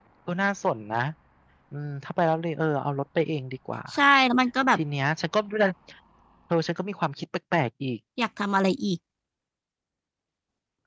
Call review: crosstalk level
none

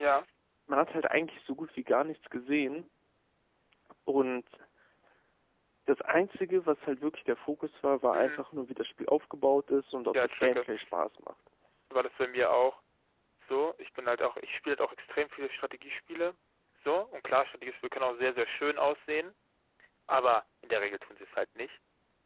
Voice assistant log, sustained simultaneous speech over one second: none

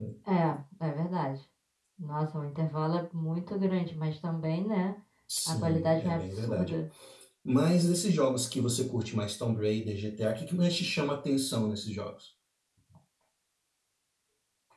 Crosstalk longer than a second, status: present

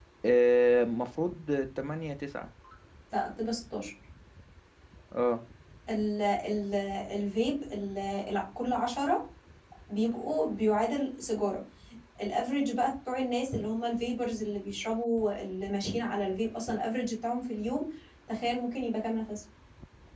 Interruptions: none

